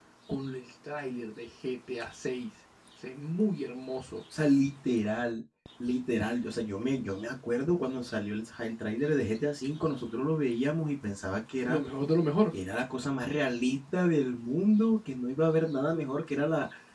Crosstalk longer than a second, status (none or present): none